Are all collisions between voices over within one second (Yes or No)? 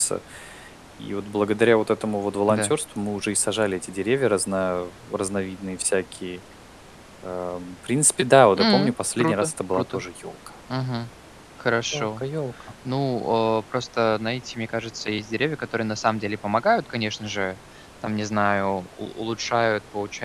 No